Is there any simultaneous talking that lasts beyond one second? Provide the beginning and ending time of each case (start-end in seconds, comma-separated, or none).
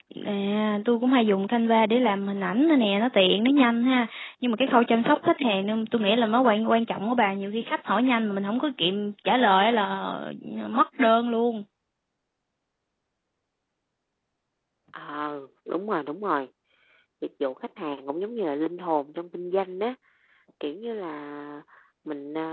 none